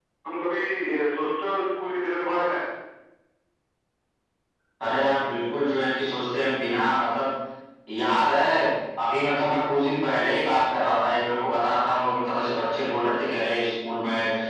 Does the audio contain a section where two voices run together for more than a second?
No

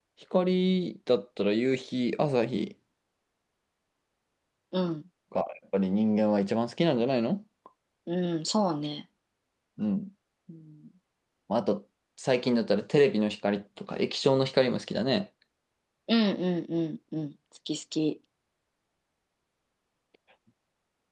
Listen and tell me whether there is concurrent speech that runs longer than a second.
No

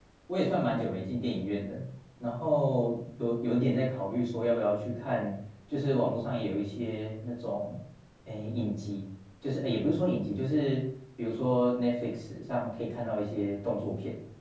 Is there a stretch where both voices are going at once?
No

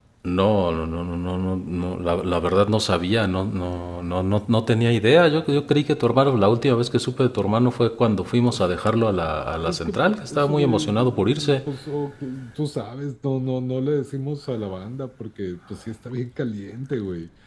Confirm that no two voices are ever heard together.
No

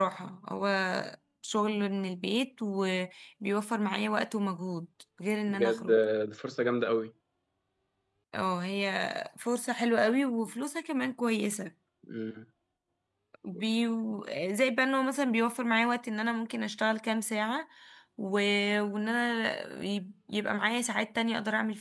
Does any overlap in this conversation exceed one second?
No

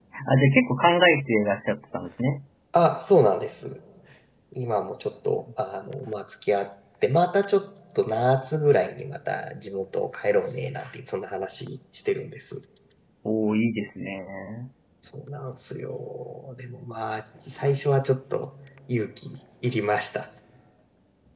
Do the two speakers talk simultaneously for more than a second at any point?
No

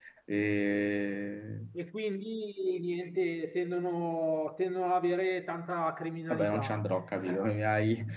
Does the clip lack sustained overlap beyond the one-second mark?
Yes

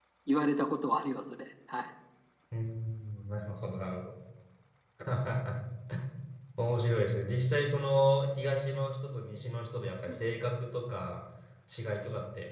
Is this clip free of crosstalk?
Yes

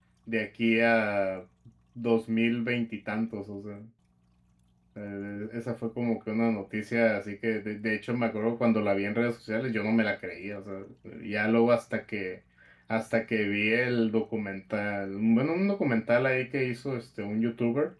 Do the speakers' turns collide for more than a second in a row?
No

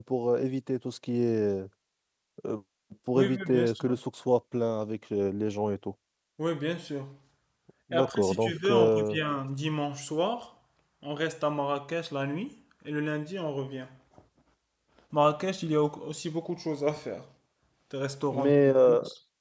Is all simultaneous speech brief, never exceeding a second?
No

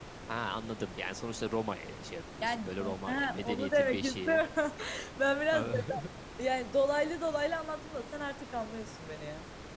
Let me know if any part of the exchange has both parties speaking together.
Yes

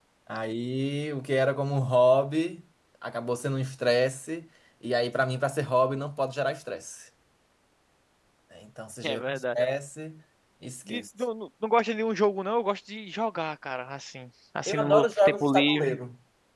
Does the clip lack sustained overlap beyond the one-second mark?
No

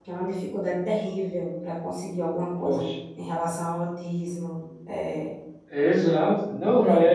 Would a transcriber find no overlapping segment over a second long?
Yes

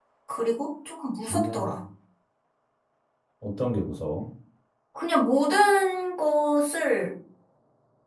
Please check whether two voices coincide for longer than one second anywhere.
No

